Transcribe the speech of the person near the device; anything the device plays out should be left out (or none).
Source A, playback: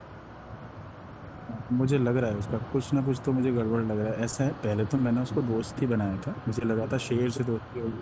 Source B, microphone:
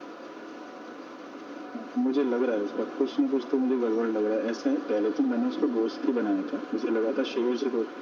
none